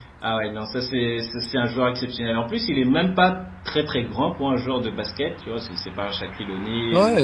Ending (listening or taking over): taking over